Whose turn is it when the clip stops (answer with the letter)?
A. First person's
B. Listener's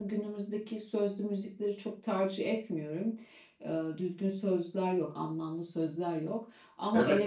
B